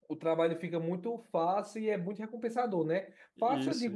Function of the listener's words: listening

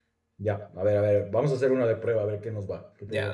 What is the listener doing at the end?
taking over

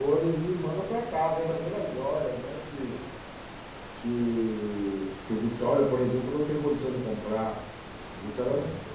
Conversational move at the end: listening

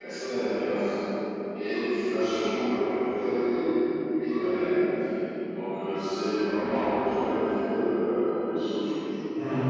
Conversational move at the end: listening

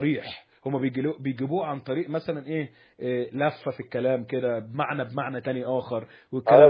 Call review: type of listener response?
taking over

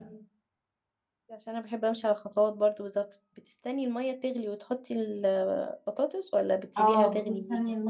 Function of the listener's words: taking over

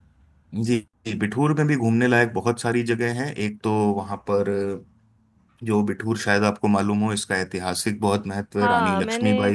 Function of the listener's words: taking over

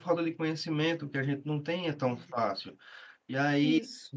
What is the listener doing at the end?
listening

